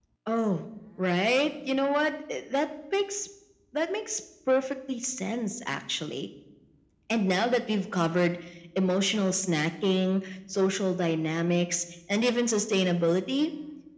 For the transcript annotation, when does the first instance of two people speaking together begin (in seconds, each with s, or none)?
none